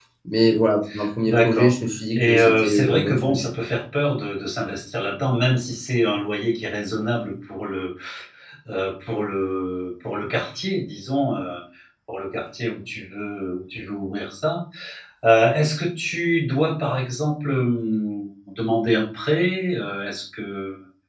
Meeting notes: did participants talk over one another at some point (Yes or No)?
Yes